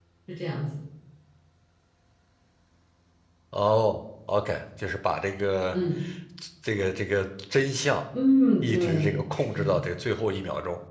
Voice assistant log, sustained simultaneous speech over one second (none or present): present